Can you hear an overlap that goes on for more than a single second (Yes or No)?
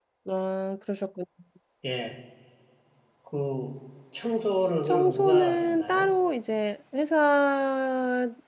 Yes